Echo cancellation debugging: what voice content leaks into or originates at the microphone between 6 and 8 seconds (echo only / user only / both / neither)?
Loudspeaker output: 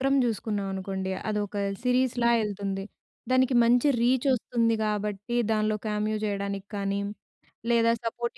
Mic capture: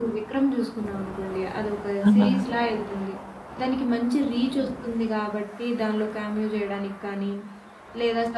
echo only